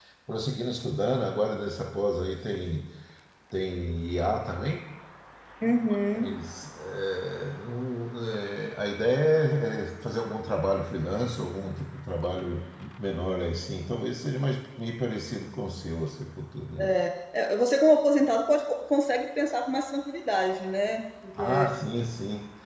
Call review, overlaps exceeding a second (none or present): none